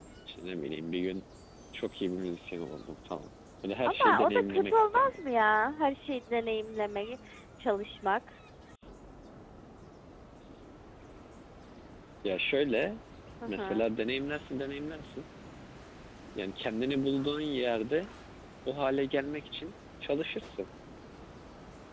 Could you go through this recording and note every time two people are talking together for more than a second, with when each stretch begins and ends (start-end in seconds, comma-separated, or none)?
3.8-5.2